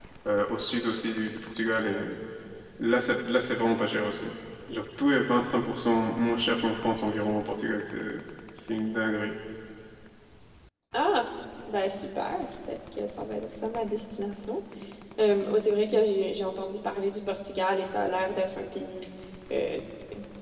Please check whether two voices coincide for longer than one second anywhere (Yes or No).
No